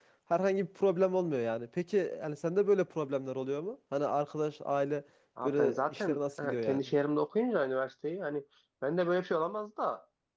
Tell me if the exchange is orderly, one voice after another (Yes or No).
No